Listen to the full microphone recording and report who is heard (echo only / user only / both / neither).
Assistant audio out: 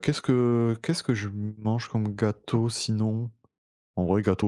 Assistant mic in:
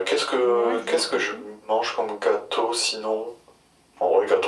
both